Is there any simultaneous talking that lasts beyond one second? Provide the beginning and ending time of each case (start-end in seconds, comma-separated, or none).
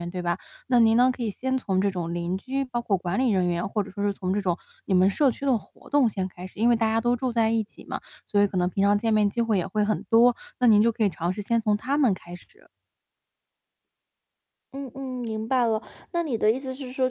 none